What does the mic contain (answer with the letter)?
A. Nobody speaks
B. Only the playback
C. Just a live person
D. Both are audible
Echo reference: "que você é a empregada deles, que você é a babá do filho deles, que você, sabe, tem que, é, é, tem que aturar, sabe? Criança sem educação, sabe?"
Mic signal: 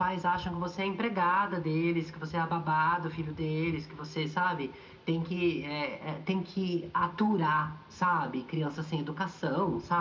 B